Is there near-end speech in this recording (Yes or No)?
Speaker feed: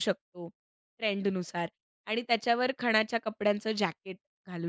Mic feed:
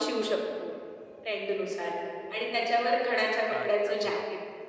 Yes